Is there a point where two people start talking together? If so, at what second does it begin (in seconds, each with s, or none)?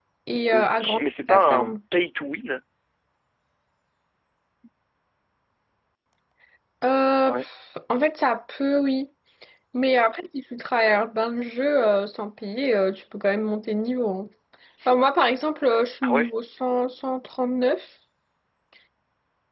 0.5 s